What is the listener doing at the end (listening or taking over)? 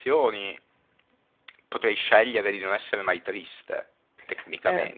taking over